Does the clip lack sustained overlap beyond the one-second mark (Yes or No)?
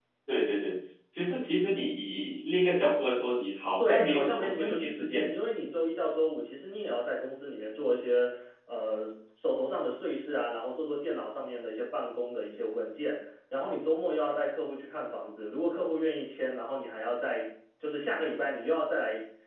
No